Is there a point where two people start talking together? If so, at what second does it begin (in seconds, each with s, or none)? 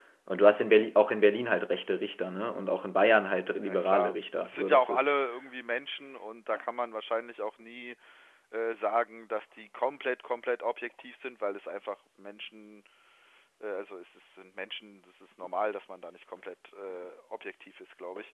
3.6 s